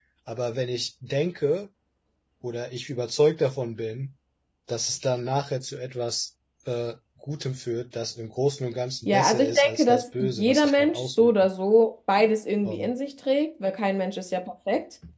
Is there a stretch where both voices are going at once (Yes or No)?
Yes